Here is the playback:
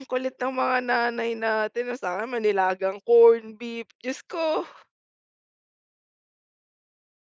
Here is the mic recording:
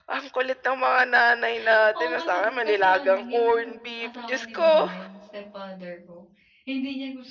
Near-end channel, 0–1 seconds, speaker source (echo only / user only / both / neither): echo only